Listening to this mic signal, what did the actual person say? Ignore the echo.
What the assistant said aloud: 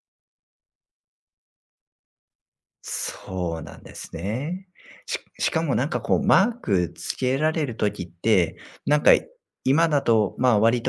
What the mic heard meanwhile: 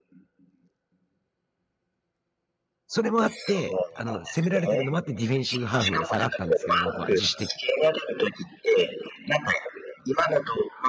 それもあって、あの、攻められてるのもあって、ディフェンシブハーフまで下がったんですけど、僕は自主的

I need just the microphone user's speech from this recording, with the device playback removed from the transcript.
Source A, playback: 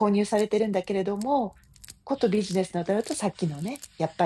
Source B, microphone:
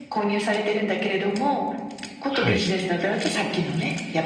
はい。

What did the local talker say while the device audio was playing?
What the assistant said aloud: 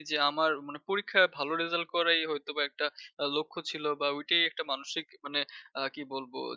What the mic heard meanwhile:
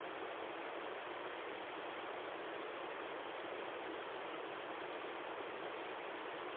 none

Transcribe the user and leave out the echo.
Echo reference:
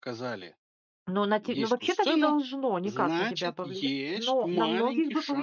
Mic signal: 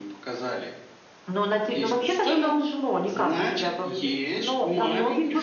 none

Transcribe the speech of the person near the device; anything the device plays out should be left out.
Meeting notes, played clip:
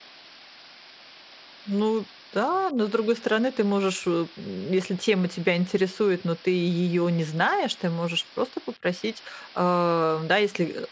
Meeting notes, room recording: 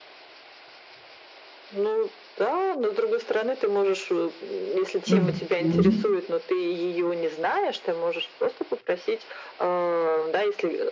Мгм.

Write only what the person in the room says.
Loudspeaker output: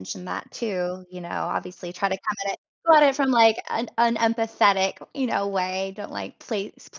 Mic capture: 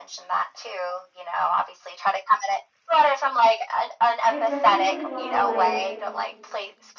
I definitely wanna, like

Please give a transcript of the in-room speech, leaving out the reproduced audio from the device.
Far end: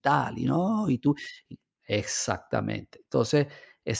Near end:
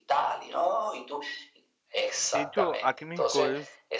de hecho, aquí en México es

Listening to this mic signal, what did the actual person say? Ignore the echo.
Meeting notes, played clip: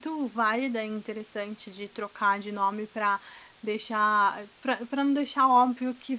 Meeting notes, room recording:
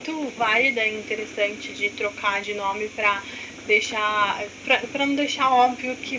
none

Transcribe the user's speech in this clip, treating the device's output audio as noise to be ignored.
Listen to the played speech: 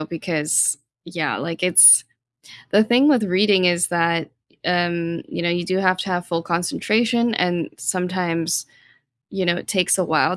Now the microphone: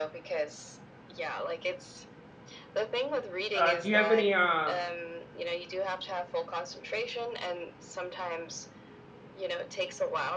uh, do you have any, uh,

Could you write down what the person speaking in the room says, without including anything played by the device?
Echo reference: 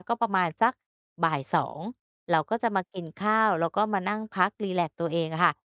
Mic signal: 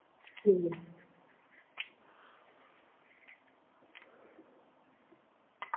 อืม

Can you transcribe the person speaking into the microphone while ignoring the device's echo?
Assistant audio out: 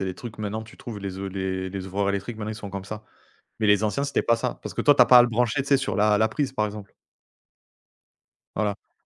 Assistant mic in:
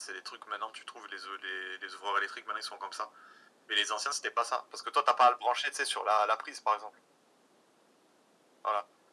none

